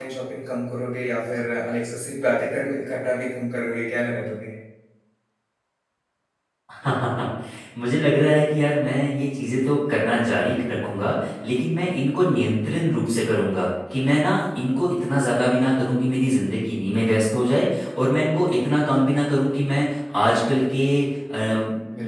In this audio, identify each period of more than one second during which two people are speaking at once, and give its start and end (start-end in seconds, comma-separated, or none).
none